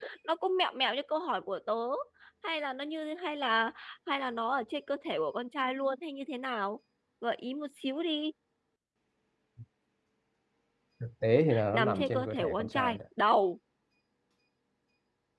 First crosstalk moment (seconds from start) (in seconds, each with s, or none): 11.7 s